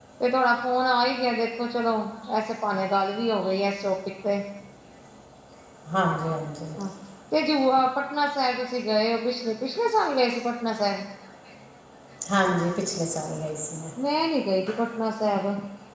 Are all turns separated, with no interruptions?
Yes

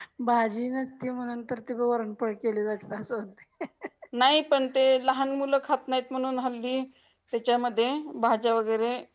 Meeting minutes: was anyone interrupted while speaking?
No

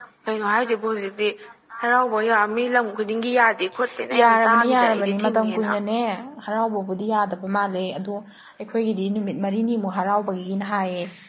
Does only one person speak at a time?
No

